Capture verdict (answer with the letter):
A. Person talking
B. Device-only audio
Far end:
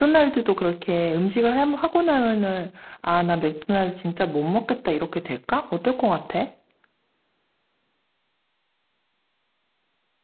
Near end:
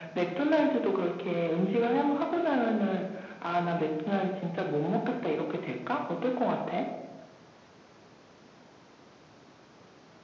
B